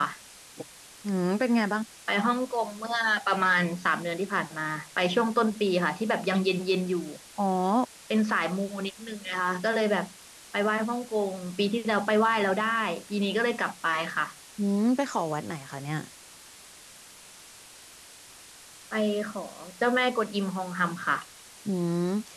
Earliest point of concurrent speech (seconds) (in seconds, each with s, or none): none